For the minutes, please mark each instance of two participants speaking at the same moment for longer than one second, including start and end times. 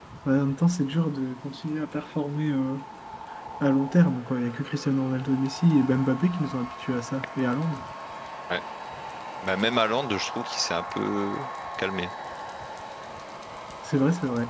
none

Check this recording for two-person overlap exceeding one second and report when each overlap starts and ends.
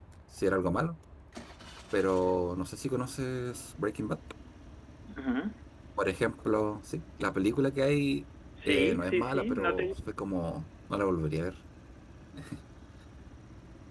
8.6-9.9

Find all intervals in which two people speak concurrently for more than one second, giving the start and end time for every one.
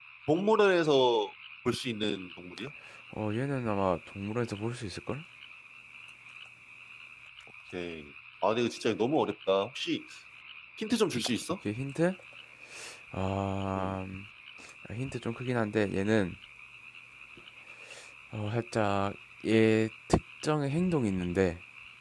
none

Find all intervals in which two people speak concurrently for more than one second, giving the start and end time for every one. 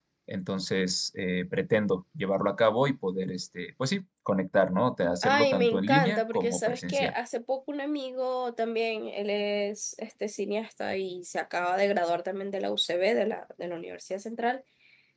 5.2-7.1

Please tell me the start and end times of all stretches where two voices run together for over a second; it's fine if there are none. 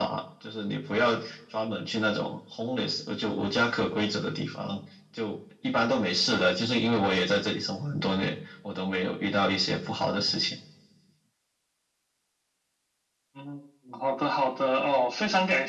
none

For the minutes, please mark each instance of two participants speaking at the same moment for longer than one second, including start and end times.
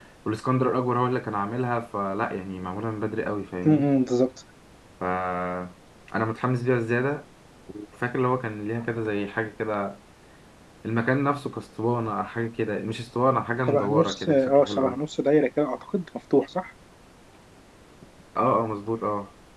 13.7-15.0

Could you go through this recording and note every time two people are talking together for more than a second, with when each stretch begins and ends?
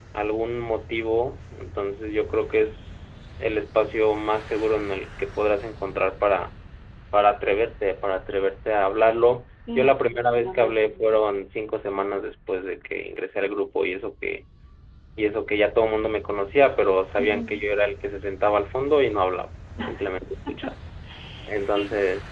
9.8-11.1

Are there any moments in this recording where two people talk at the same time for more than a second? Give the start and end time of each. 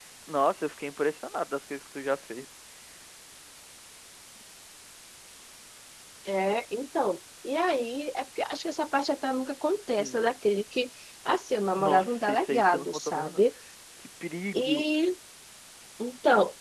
11.7-13.4

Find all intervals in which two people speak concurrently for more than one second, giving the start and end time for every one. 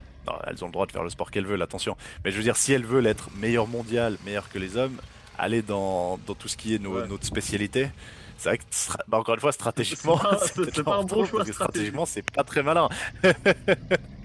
9.8-12.0

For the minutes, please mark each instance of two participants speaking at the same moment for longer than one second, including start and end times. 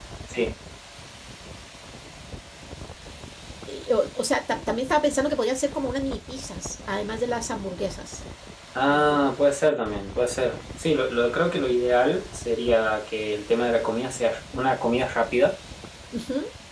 none

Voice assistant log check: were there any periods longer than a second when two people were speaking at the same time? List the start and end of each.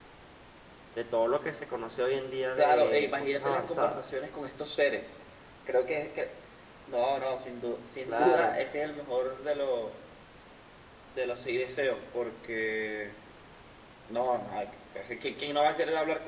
2.5-4.0

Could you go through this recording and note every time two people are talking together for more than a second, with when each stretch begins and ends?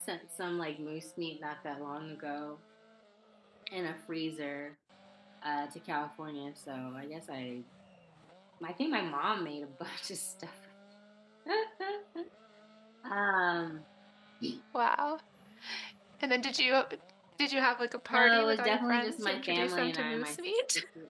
18.1-20.4

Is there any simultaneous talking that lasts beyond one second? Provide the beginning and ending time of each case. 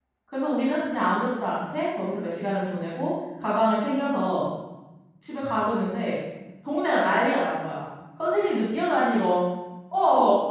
none

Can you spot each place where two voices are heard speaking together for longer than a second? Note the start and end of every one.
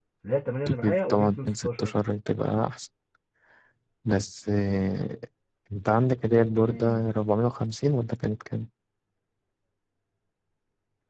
0.6-1.9

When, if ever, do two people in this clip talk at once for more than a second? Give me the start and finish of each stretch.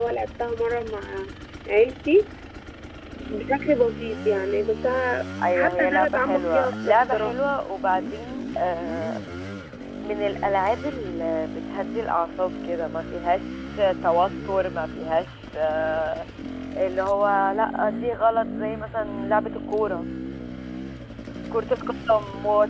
5.5-7.4

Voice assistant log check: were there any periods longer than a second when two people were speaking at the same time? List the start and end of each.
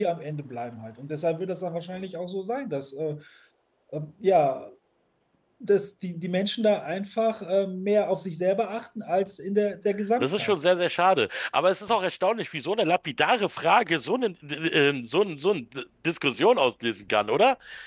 none

